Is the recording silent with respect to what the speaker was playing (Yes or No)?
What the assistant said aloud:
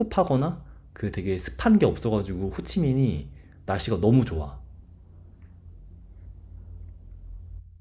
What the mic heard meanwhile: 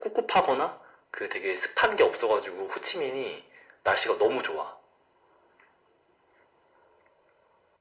No